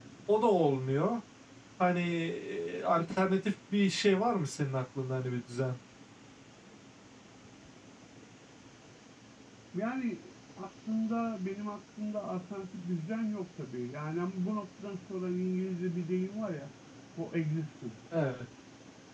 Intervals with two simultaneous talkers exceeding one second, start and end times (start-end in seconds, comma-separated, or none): none